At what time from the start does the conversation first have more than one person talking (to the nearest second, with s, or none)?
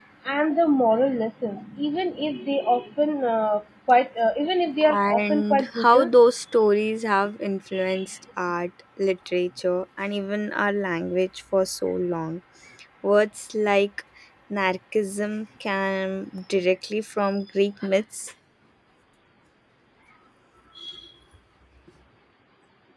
5 s